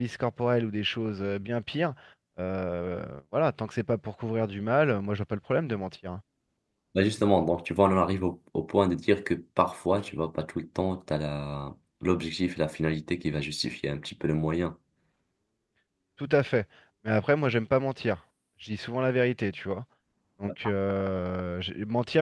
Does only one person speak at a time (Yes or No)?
Yes